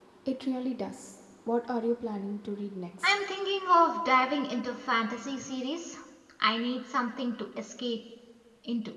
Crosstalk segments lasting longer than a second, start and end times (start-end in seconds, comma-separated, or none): none